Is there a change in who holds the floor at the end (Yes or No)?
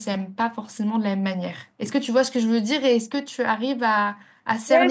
Yes